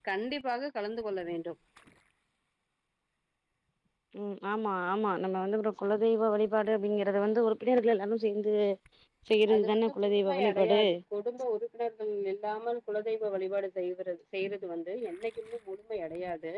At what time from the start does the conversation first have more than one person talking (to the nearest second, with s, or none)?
10 s